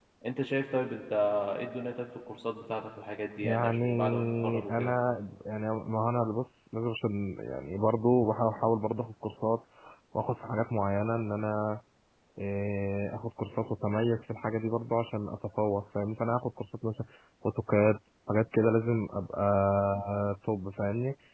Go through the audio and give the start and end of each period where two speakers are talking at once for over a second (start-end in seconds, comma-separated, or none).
3.4-5.0